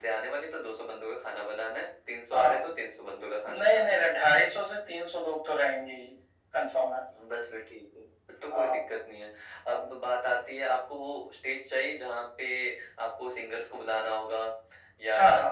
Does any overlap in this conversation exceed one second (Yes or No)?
No